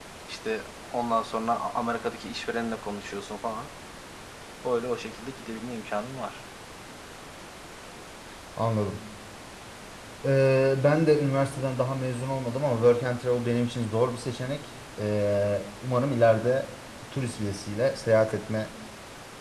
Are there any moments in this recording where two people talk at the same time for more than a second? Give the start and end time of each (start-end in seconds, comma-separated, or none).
none